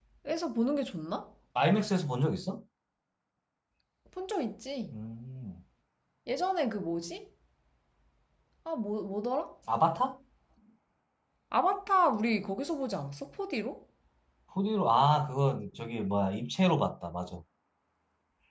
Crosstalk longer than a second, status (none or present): none